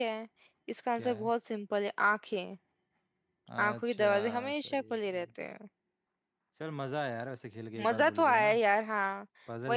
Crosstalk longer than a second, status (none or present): present